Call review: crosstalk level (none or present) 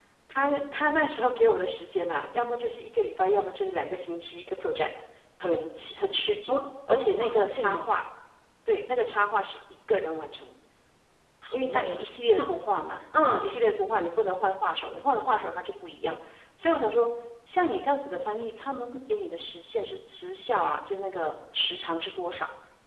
present